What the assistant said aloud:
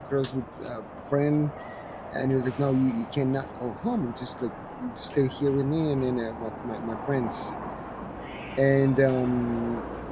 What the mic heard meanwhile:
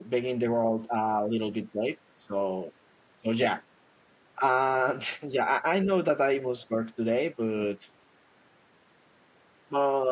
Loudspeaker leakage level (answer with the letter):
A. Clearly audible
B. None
B